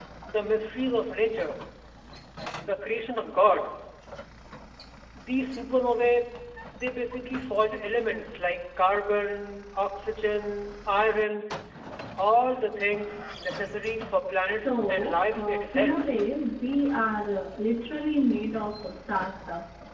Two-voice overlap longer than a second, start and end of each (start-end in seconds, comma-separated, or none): 14.5-16.0